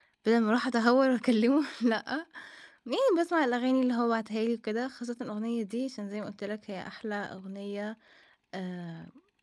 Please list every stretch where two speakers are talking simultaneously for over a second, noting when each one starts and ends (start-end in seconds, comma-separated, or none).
none